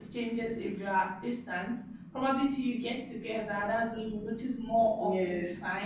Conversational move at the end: listening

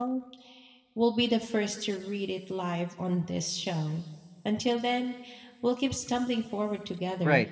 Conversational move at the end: taking over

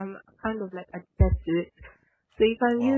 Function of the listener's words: listening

